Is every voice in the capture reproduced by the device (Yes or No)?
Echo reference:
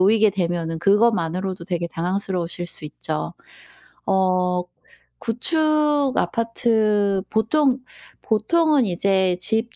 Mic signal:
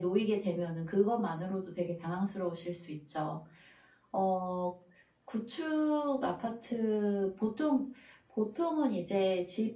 Yes